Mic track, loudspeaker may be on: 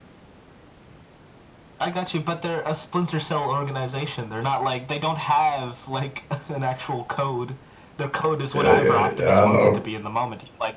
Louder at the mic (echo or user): user